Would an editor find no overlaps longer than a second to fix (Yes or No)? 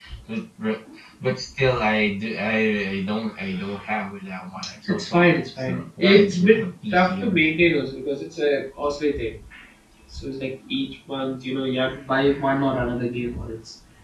No